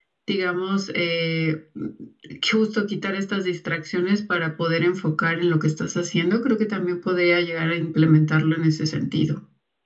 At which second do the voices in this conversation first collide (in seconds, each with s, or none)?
none